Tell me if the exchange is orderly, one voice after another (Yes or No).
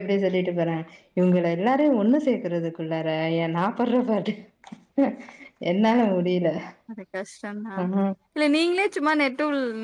Yes